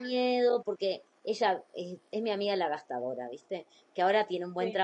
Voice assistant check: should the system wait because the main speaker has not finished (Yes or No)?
Yes